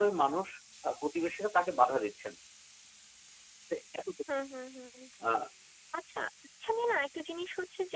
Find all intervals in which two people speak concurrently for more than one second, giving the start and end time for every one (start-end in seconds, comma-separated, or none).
none